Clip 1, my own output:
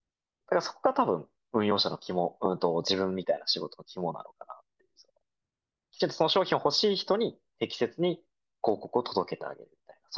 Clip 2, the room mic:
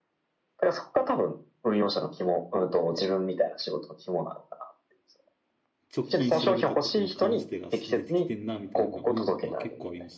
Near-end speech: present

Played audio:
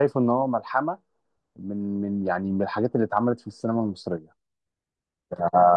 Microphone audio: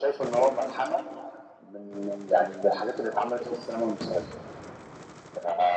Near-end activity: none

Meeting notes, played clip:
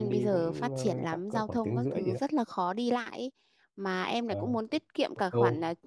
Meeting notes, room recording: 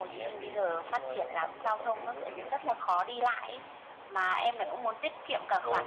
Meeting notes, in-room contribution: none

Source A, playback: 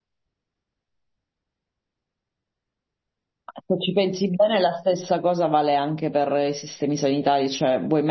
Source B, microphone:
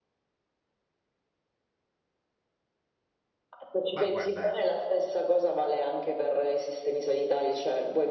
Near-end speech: present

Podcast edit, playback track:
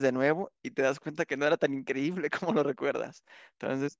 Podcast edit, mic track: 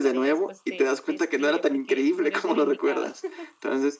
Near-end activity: present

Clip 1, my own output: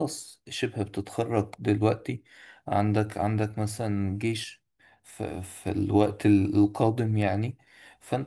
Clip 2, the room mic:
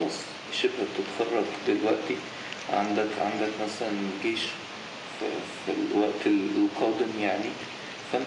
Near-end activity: none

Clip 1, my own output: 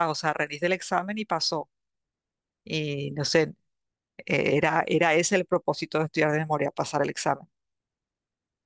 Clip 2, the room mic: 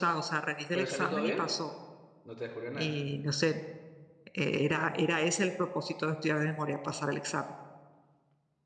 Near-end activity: present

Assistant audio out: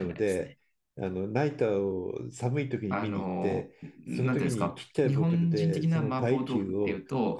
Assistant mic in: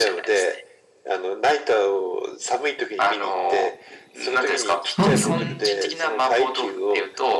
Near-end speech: present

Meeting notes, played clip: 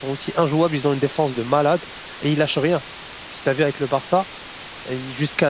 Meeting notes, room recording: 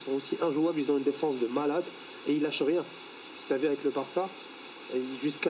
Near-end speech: none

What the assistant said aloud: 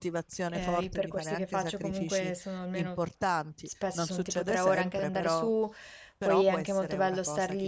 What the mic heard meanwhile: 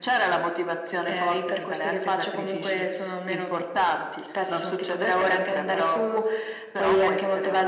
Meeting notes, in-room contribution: none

